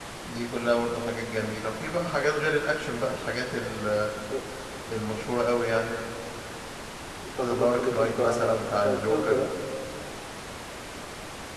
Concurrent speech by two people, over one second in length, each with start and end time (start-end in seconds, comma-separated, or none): 7.4-9.4